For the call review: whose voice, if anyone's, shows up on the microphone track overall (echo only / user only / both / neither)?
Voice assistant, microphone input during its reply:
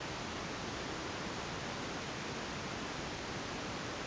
neither